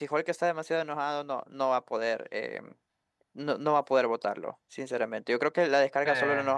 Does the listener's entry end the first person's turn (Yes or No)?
No